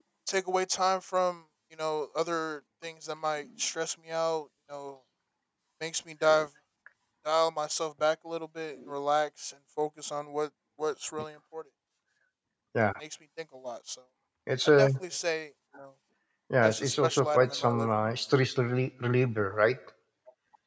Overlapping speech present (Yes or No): Yes